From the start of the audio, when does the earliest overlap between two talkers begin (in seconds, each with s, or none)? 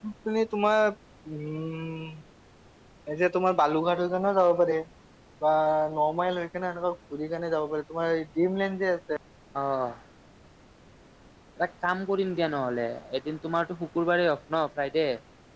none